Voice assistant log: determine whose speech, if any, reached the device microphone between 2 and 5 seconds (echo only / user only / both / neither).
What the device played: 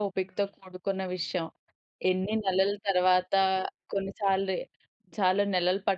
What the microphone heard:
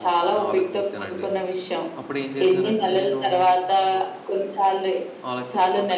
both